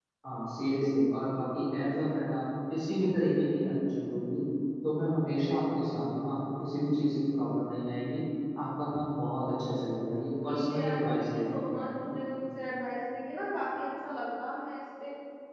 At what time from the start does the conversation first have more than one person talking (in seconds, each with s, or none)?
10.4 s